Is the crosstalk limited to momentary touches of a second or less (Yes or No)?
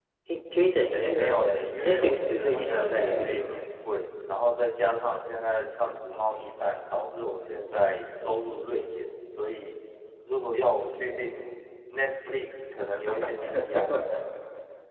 No